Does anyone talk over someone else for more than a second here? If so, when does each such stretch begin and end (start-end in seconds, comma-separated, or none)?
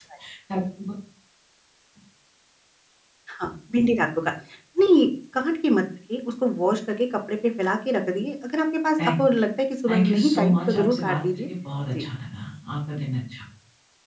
9.9-11.2